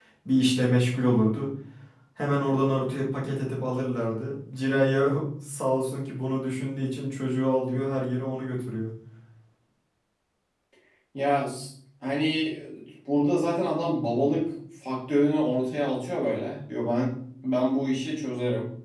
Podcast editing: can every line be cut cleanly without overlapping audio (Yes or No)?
Yes